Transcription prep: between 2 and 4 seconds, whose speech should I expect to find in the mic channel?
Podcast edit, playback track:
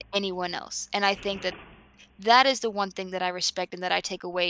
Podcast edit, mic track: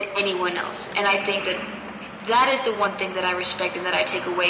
echo only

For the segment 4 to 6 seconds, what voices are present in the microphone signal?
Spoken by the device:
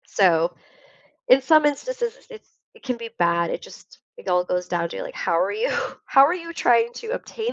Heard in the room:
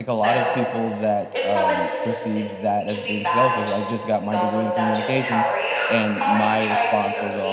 both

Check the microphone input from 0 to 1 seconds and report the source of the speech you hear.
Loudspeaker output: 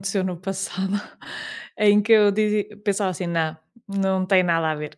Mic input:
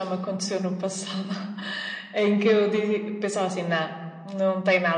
echo only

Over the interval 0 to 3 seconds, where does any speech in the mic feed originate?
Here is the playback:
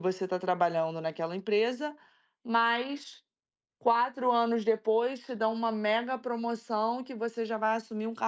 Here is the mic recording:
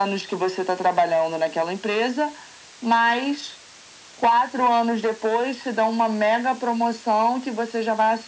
echo only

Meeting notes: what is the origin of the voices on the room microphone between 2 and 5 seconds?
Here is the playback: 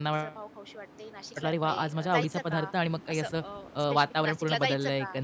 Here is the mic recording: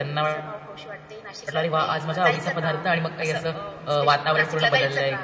echo only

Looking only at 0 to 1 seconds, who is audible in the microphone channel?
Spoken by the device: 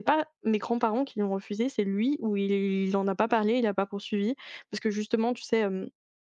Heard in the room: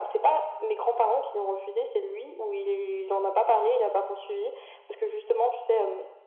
echo only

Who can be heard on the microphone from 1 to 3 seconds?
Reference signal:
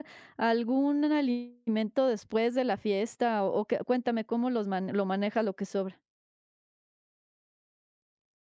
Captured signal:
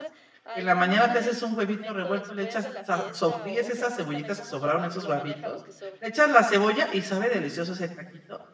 both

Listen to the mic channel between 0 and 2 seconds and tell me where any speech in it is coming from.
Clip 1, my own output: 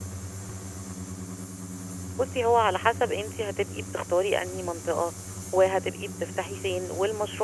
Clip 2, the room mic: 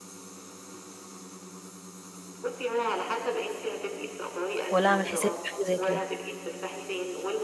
neither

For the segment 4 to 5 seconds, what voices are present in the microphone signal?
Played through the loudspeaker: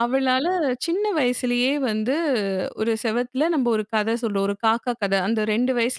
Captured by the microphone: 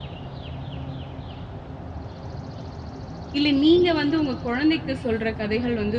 user only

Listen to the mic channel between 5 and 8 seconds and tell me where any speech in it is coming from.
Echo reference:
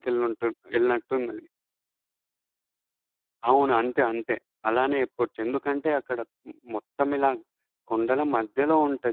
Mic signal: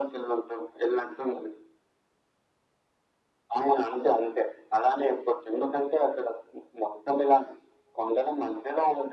echo only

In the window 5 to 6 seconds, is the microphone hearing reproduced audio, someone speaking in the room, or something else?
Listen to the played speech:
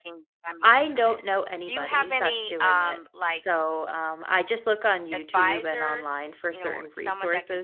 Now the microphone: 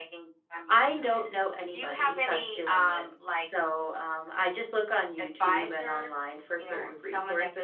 echo only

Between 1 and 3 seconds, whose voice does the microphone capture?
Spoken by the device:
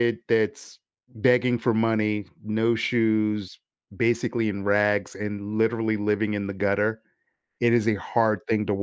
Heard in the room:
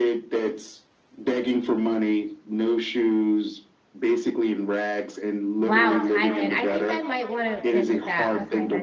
echo only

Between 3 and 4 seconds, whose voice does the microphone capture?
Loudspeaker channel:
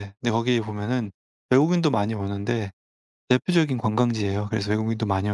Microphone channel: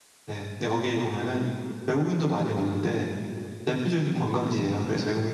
echo only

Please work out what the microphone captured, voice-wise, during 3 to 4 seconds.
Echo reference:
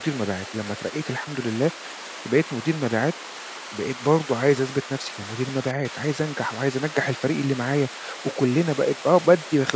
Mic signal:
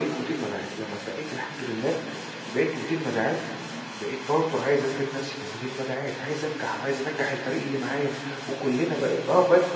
both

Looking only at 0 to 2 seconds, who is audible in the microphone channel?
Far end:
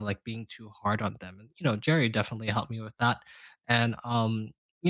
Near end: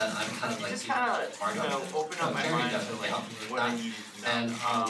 both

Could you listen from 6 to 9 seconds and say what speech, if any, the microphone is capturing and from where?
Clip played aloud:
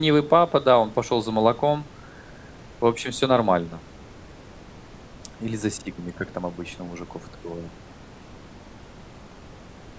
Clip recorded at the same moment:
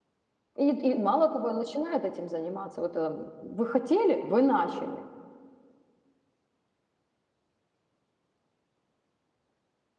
neither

